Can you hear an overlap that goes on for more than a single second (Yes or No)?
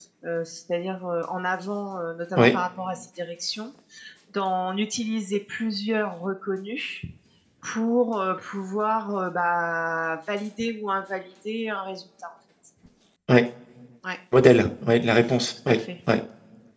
No